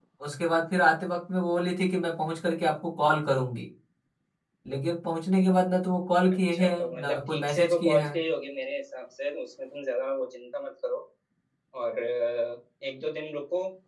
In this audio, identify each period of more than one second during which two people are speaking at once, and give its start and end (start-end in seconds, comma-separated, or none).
6.5-8.1